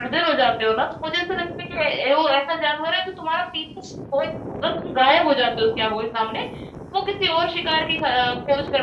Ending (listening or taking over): listening